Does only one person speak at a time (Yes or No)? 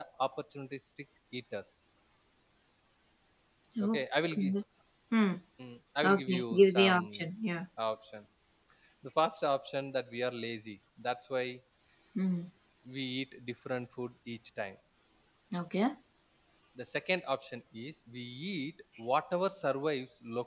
No